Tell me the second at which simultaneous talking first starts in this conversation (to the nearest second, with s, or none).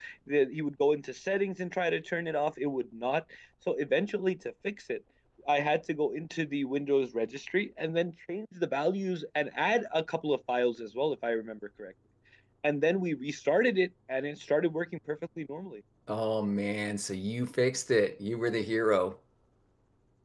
none